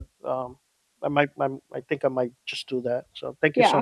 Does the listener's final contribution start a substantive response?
Yes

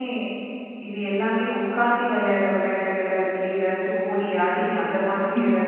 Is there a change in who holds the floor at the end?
No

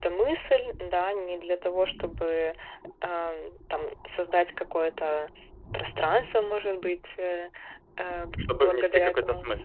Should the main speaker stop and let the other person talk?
Yes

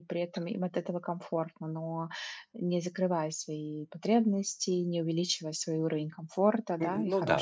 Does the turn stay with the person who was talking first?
No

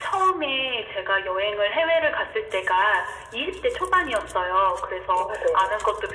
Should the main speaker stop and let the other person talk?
No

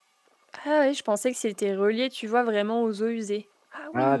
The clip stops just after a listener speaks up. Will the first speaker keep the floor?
No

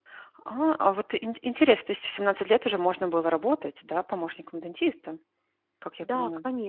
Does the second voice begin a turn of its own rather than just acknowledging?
Yes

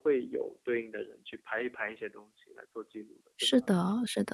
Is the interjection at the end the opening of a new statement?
Yes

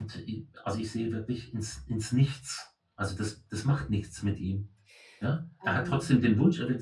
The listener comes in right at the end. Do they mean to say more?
No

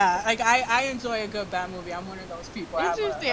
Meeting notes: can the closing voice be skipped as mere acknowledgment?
No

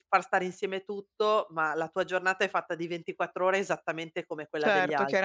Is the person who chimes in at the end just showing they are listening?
No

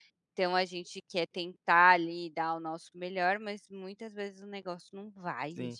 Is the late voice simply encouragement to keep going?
No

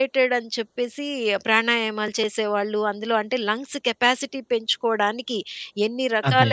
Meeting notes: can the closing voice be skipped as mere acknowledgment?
Yes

